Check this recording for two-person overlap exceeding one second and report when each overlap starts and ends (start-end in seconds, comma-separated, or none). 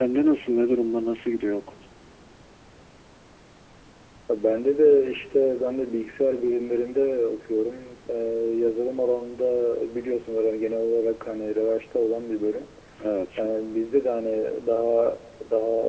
none